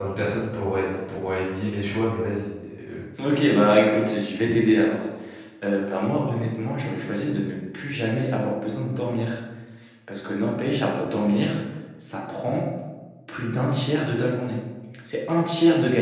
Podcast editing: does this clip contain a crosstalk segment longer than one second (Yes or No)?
No